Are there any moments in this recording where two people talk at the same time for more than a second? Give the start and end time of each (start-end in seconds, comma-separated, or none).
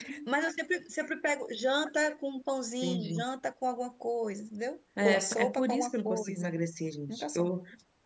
5.0-6.5